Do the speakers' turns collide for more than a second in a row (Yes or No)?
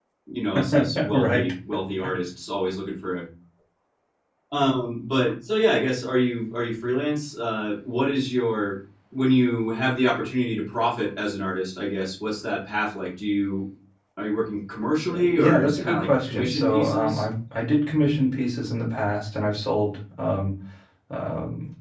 Yes